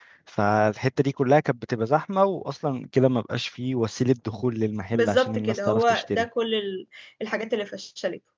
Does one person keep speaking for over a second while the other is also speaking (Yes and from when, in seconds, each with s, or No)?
Yes, from 4.9 s